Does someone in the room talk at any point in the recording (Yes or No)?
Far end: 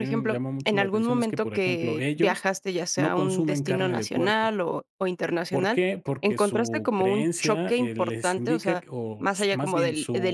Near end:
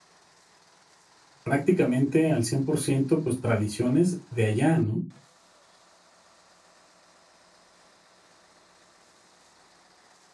Yes